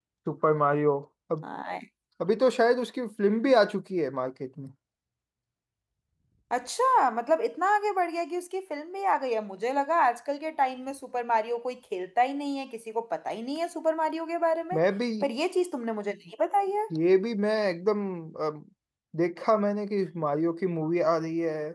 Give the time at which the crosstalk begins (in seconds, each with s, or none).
none